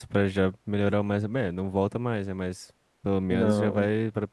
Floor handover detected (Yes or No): No